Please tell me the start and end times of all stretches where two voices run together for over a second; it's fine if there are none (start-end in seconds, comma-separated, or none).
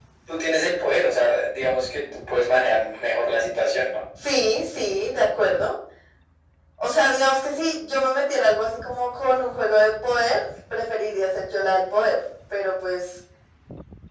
none